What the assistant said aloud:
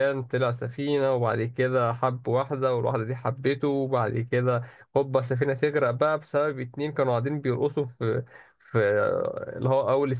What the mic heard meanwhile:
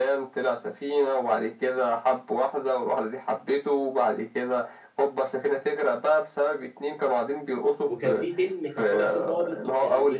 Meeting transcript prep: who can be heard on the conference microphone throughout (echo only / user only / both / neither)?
both